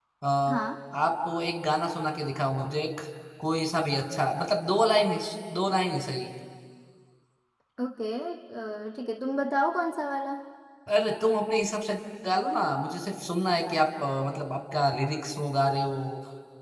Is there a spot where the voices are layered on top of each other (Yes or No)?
No